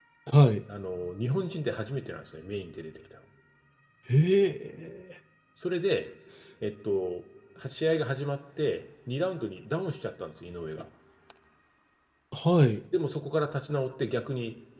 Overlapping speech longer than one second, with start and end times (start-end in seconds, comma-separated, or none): none